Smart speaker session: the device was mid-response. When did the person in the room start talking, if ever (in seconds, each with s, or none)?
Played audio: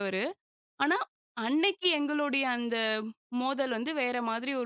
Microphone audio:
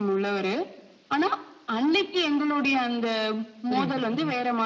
3.7 s